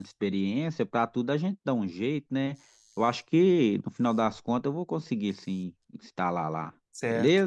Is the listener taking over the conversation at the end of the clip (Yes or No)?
Yes